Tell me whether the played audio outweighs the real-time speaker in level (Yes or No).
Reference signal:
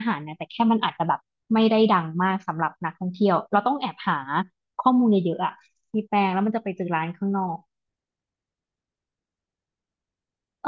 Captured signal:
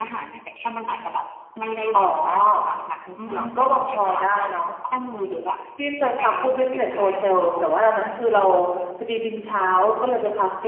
No